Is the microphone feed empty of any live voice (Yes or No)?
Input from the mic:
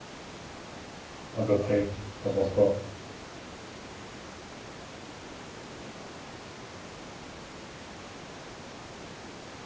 No